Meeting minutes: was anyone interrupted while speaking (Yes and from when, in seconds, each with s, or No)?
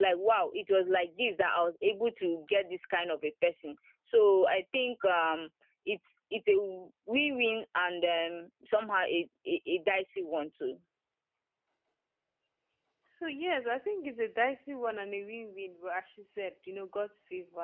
No